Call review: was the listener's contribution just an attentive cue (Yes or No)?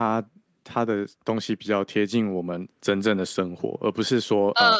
Yes